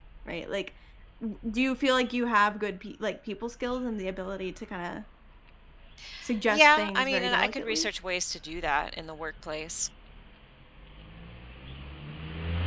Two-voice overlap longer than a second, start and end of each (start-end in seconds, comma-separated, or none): 6.5-7.9